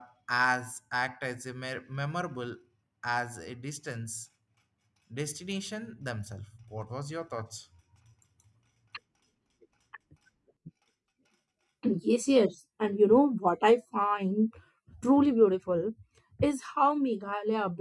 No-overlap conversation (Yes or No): Yes